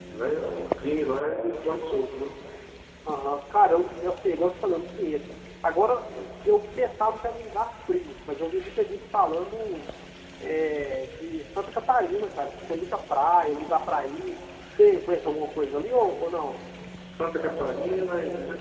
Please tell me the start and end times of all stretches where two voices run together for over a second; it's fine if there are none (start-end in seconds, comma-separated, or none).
none